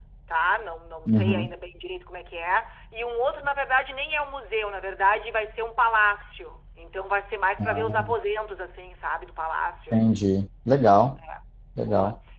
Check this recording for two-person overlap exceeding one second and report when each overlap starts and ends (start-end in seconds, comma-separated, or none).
none